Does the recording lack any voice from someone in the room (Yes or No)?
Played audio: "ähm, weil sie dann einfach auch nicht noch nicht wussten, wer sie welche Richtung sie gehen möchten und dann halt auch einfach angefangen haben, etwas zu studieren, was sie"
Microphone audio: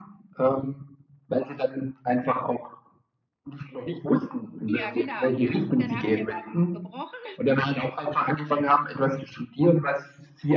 No